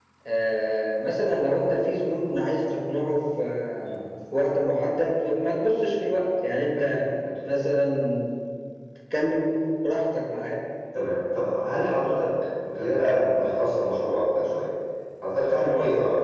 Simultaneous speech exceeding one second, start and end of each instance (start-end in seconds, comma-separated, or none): none